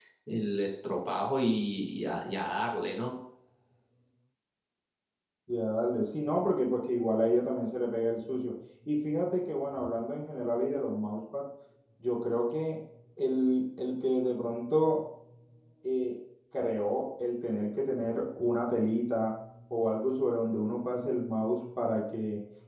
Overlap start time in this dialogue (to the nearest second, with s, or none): none